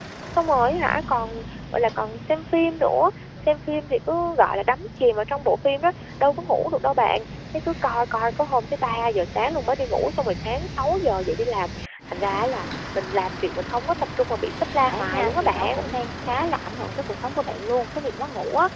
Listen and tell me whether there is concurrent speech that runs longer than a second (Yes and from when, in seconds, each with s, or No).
Yes, from 14.5 s